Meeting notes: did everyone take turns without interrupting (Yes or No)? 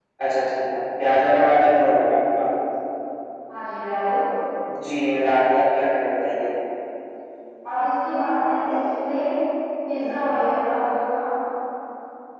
Yes